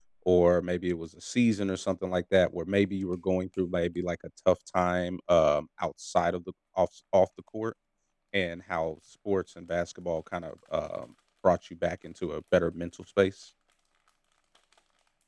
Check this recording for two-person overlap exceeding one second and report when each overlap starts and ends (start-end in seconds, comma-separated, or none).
none